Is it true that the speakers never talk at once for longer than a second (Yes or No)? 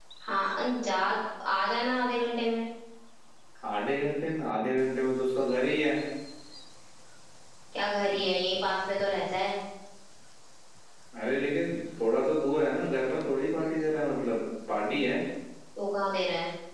Yes